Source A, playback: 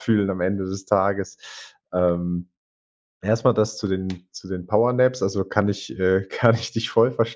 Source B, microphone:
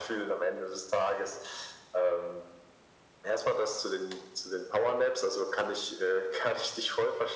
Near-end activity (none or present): none